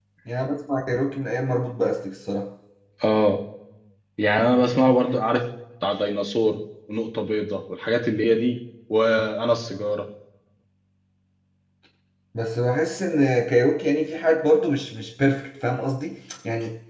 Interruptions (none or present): none